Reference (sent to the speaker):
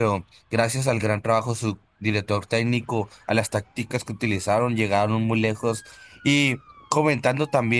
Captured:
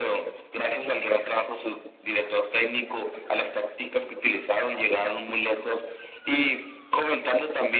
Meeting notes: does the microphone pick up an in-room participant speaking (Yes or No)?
No